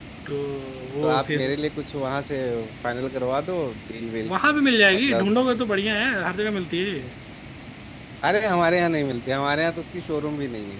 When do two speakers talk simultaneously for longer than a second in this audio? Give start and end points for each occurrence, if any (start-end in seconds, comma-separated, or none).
none